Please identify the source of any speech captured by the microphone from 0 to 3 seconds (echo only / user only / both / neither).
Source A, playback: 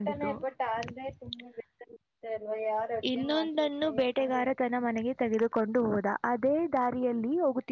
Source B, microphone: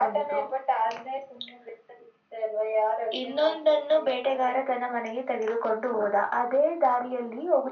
echo only